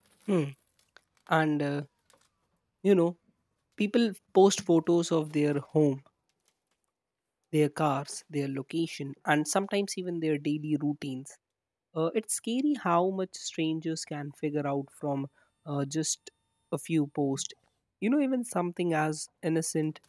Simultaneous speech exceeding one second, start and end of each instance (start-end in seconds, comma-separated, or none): none